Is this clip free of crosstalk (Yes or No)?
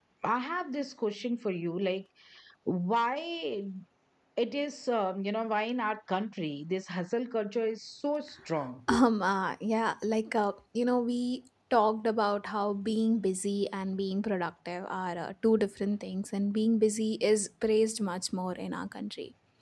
Yes